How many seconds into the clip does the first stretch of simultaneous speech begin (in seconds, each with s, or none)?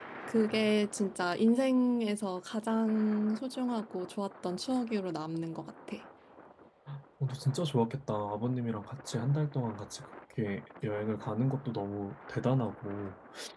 none